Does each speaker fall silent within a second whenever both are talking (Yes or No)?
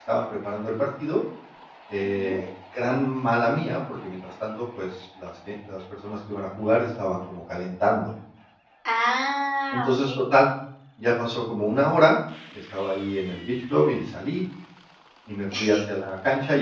Yes